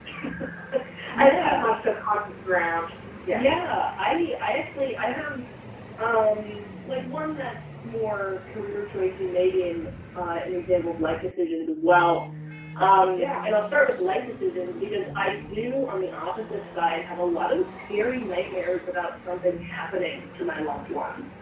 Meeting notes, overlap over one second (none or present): none